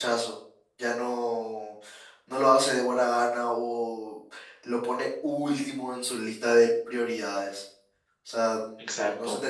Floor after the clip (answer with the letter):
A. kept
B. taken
A